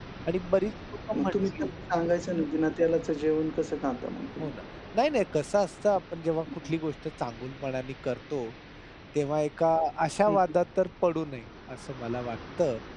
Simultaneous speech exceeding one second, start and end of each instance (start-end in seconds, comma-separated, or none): none